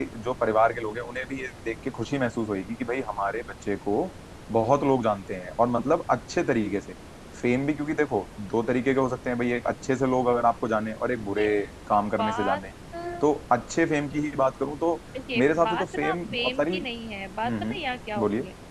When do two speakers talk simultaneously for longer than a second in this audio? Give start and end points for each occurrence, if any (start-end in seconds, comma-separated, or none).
15.4-16.7